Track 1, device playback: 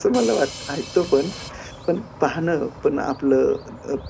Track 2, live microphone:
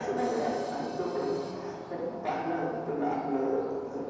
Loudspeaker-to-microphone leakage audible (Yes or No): Yes